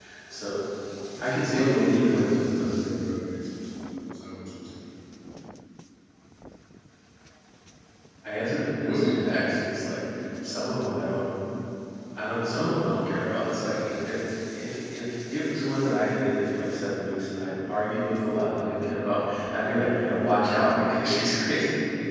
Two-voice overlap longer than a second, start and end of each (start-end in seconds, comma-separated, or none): 1.4-2.8